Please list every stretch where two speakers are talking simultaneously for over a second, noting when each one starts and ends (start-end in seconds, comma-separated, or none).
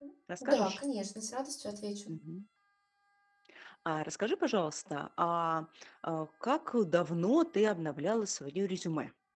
none